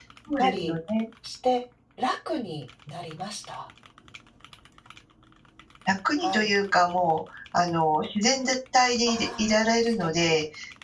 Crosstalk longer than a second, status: present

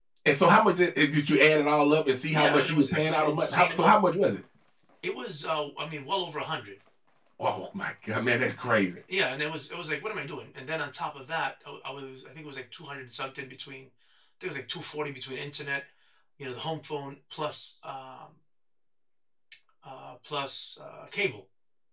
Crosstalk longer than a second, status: present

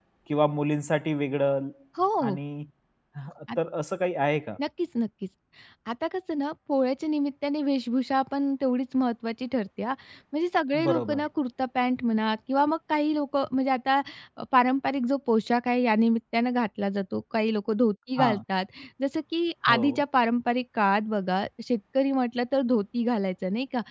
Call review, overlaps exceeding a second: none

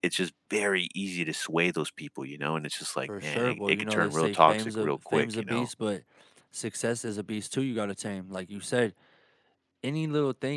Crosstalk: present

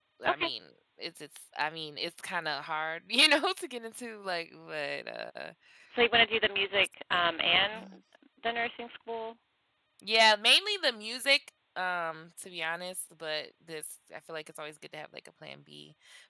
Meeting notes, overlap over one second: none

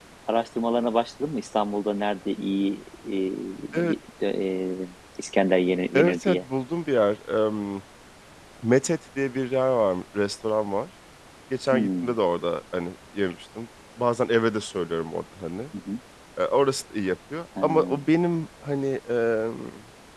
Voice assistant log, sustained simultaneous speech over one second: none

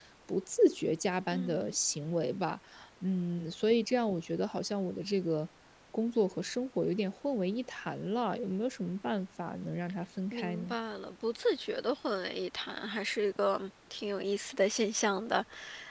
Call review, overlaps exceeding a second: none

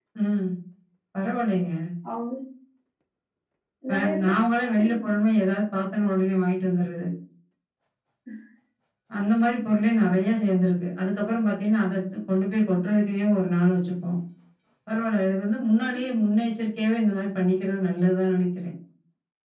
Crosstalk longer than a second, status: present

